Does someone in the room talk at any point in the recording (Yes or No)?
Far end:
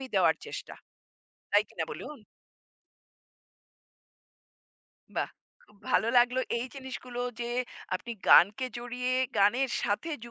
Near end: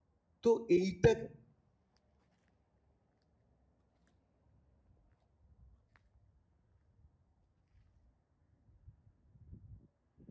Yes